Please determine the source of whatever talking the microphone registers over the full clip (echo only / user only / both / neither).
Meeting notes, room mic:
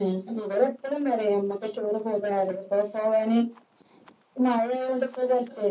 echo only